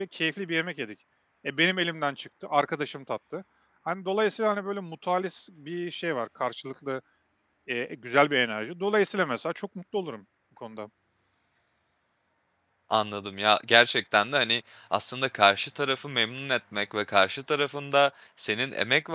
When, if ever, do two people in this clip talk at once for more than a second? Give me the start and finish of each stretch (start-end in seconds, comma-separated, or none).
none